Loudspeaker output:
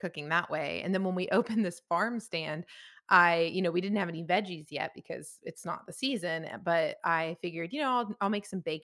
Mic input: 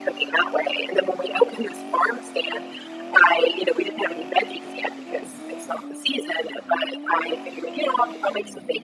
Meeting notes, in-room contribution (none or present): none